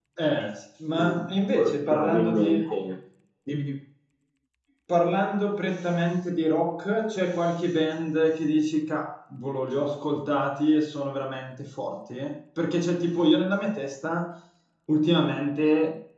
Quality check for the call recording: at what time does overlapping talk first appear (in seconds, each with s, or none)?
0.9 s